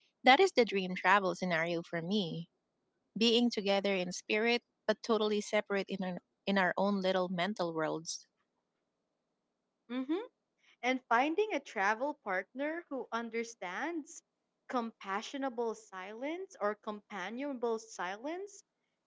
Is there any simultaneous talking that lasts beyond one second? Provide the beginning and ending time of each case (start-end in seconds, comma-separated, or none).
none